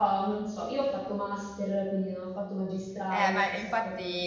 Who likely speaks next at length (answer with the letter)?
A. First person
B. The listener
B